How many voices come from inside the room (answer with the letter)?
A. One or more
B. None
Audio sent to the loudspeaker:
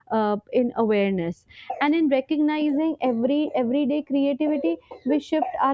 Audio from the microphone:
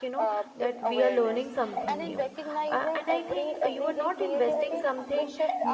A